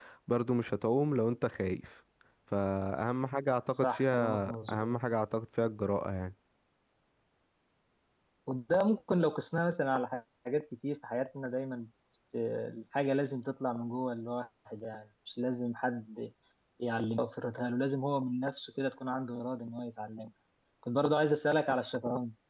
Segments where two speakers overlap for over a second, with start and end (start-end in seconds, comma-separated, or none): 3.7-5.0